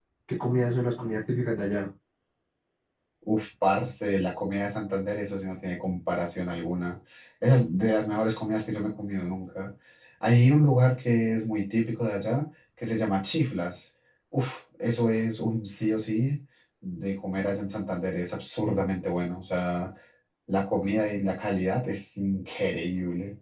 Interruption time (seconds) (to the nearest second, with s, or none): none